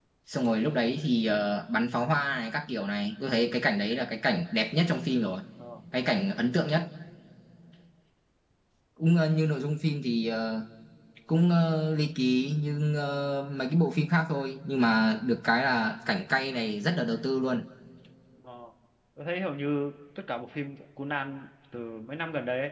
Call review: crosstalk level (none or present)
none